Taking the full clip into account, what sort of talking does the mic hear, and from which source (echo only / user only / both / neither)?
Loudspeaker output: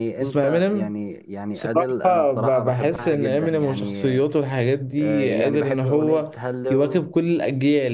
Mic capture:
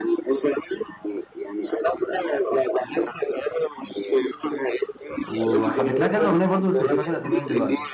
both